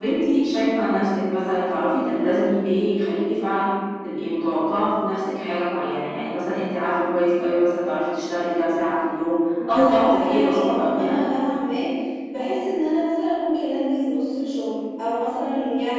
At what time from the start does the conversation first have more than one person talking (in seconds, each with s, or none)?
9.6 s